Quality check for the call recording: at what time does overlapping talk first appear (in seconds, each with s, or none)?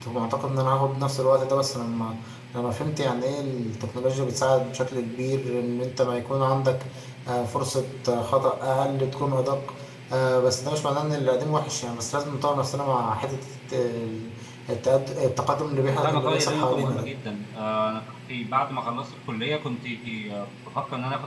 15.9 s